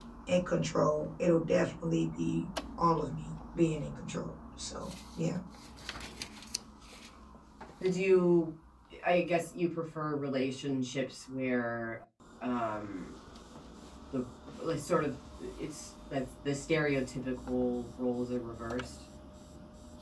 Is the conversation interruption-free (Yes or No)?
Yes